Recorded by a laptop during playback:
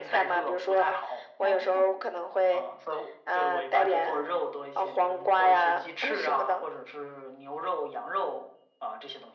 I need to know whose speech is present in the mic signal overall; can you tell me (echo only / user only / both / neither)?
both